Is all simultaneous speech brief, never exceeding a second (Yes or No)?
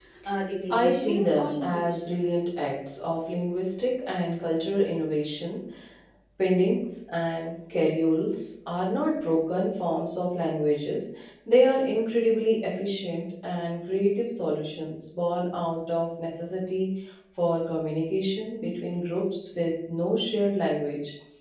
No